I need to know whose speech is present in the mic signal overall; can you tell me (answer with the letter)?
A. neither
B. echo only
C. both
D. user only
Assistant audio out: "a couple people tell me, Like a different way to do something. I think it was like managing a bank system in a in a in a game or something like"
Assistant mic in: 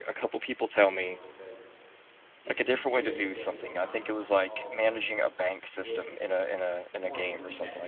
C